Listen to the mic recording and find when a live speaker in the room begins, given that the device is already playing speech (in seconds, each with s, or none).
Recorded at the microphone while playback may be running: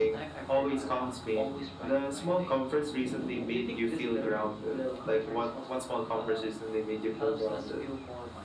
none